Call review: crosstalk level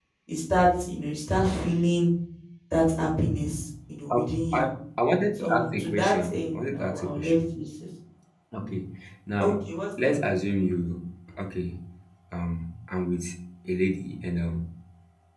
present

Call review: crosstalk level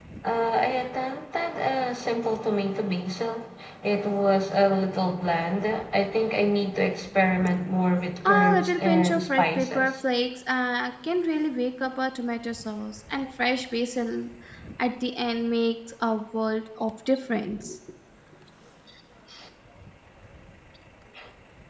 present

